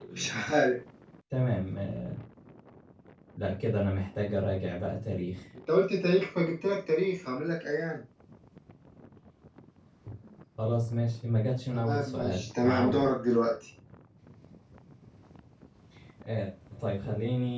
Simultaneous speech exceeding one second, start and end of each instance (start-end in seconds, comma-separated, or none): 11.7-13.1